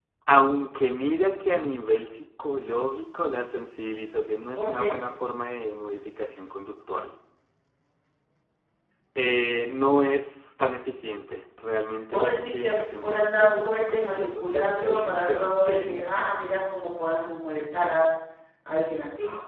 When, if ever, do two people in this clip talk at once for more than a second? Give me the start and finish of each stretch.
12.1-15.9

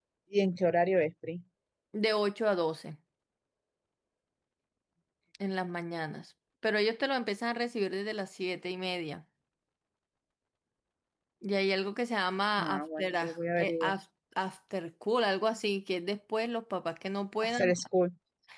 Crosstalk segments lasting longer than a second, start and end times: 12.6-13.9

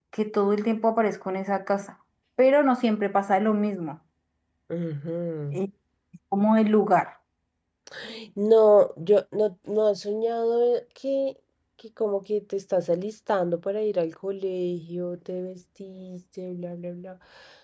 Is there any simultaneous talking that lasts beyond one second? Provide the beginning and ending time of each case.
none

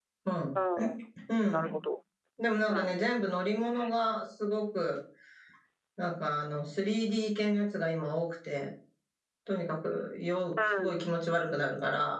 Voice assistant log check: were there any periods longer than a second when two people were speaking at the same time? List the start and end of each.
none

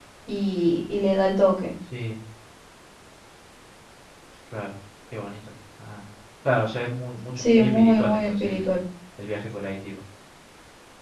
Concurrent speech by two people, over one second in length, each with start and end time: 7.4-8.7

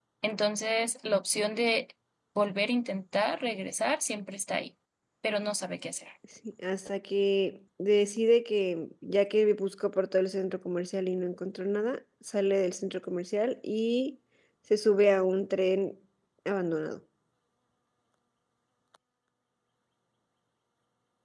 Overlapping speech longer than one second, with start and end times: none

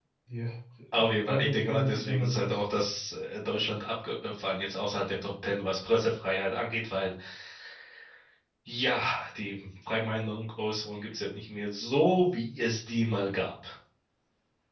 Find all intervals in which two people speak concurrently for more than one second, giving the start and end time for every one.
1.3-2.6

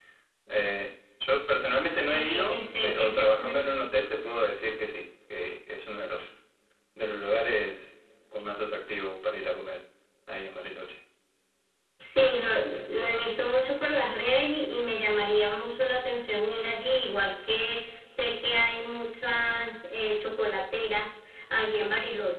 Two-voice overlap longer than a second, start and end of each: 2.1-3.4

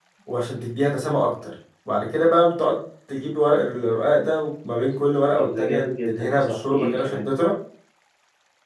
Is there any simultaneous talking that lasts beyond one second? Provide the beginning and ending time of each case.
5.4-7.2

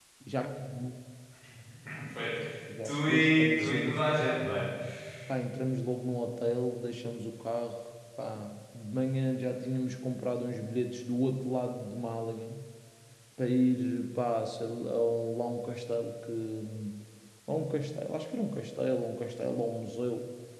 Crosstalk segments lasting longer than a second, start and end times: 2.8-4.2

